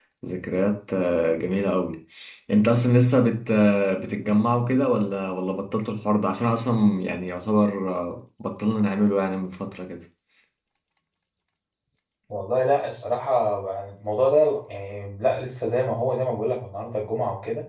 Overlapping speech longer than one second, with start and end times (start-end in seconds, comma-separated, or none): none